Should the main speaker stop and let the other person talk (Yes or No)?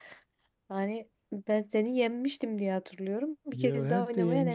Yes